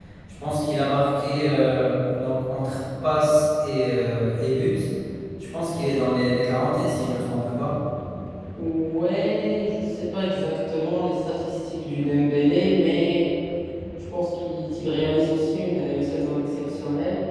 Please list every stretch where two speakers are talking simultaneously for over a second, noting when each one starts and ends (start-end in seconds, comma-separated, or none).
none